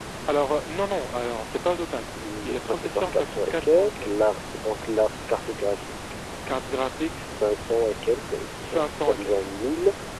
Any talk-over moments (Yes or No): Yes